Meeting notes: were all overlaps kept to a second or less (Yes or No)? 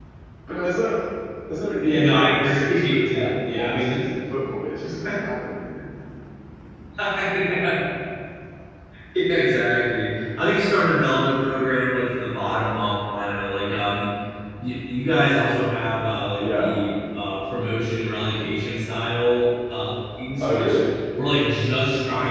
No